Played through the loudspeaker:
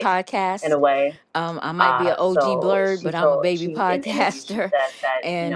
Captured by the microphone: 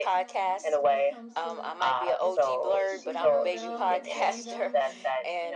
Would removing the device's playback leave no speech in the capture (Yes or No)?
No